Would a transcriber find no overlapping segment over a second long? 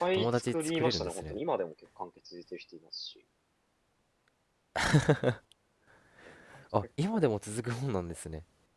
No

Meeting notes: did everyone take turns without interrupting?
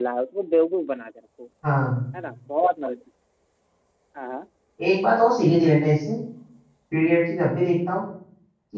Yes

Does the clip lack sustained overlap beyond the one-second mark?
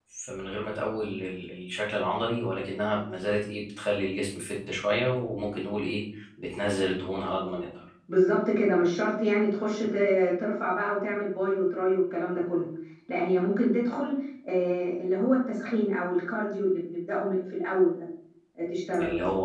Yes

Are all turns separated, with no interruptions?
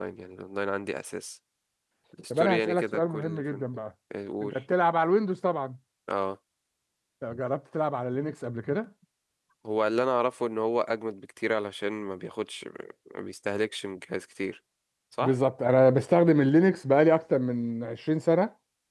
No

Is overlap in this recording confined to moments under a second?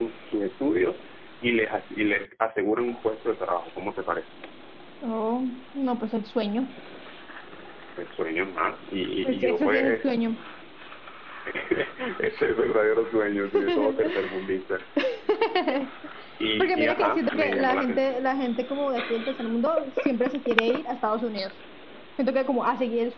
No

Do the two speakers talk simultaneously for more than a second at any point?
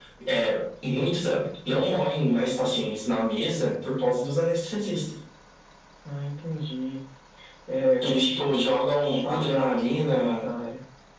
Yes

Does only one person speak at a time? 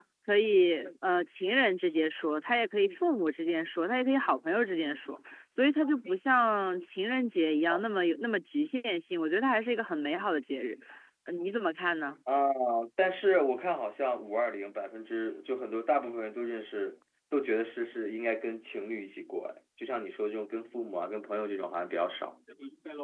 Yes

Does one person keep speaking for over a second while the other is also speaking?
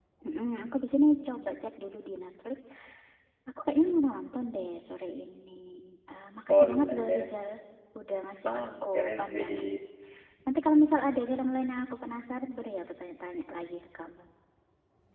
Yes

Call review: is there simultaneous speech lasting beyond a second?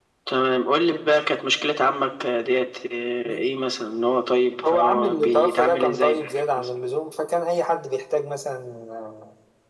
Yes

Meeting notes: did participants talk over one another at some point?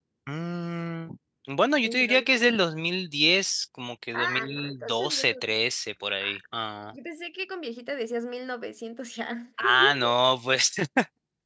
Yes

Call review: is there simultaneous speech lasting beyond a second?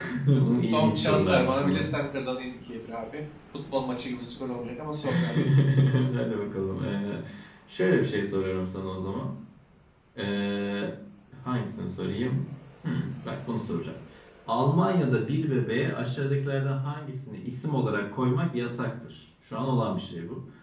Yes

